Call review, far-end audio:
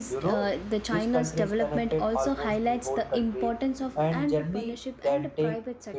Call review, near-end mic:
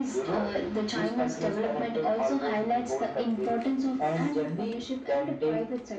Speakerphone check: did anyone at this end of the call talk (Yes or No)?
No